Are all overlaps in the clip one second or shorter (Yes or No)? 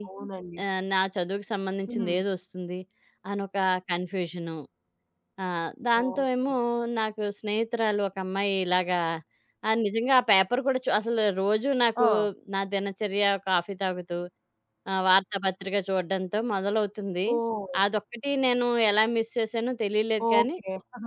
Yes